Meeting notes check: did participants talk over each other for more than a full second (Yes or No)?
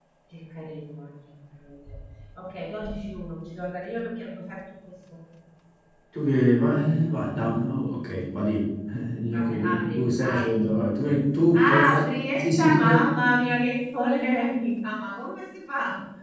Yes